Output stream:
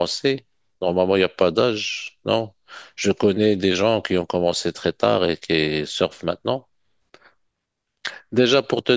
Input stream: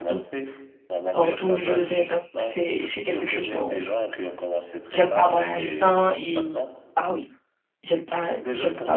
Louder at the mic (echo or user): user